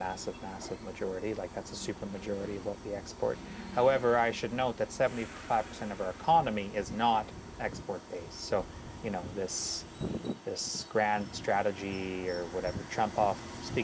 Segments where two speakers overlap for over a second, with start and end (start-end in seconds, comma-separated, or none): none